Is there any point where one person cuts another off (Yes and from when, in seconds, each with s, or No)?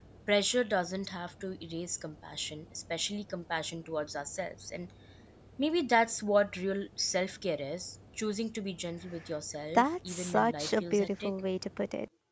Yes, from 9.8 s